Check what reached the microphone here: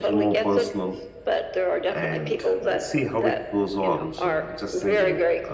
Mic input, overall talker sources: both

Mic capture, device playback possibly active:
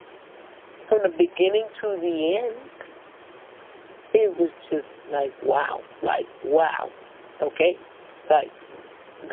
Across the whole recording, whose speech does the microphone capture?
user only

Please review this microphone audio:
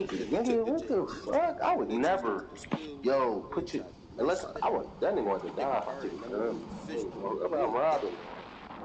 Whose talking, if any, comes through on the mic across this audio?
both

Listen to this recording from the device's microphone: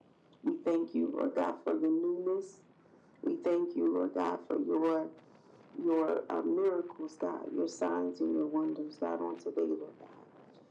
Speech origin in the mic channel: echo only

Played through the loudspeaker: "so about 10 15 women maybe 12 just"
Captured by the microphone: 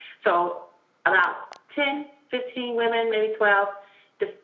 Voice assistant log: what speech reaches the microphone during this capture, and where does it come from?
echo only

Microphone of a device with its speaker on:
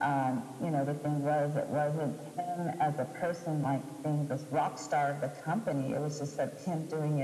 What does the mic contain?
echo only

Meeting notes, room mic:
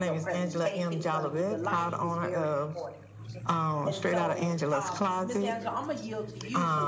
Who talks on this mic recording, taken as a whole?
both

